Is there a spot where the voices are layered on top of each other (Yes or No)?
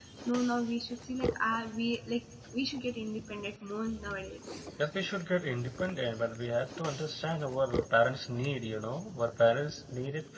No